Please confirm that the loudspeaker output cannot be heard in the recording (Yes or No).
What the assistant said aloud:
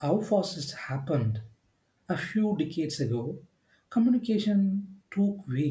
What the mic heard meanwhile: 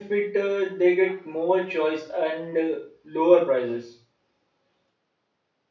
Yes